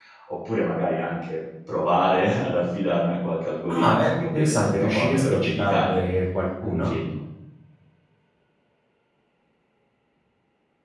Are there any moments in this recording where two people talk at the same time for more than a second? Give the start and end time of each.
3.7-6.0

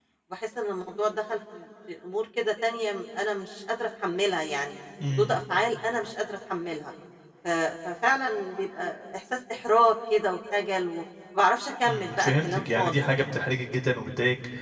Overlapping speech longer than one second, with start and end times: 11.9-13.2

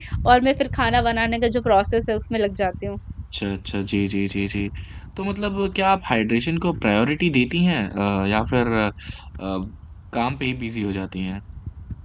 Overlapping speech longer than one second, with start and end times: none

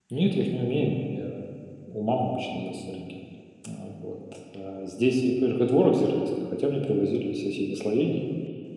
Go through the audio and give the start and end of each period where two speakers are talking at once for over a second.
none

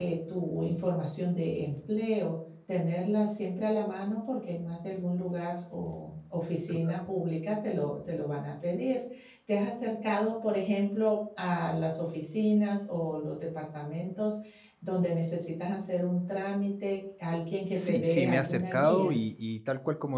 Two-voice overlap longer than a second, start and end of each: 17.8-19.1

